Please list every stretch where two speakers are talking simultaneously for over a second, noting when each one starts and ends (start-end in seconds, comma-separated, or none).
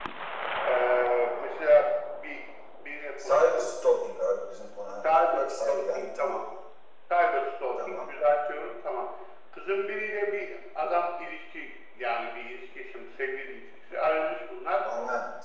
5.0-6.4